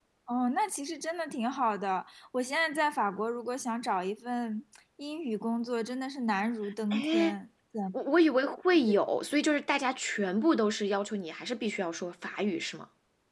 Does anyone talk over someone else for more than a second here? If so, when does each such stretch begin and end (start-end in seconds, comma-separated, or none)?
none